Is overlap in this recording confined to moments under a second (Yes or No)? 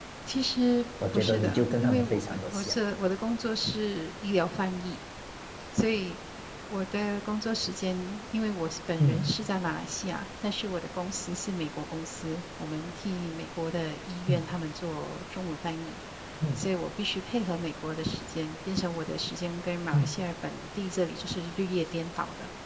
No